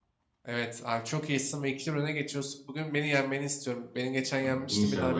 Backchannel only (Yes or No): Yes